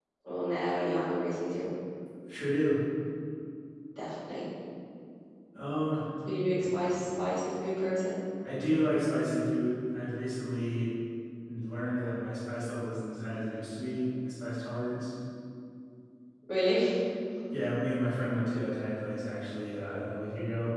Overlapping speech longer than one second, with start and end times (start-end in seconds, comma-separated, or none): none